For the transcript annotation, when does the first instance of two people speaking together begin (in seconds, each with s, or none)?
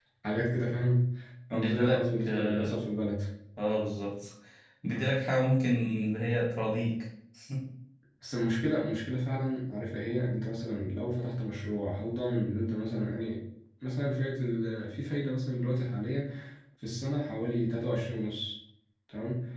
1.5 s